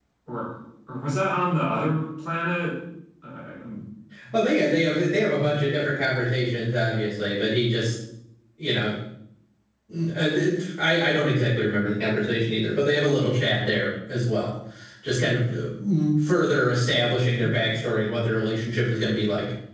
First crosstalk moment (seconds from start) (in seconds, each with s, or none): none